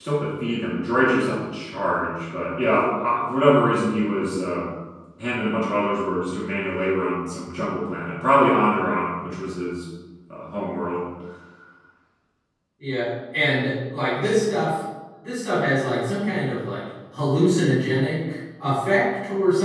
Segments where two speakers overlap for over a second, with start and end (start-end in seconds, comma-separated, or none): none